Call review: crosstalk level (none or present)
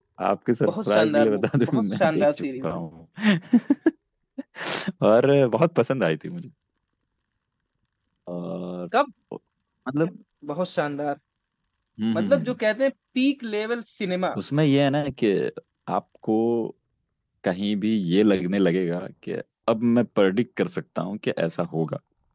present